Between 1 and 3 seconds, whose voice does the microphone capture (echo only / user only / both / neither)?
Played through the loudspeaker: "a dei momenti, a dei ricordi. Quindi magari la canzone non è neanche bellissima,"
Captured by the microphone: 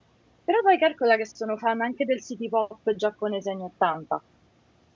user only